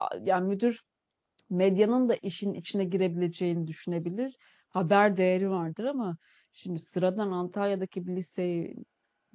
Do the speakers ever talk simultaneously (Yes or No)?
No